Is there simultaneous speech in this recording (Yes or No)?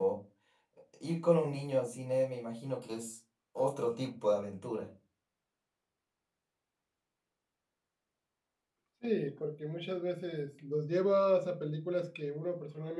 No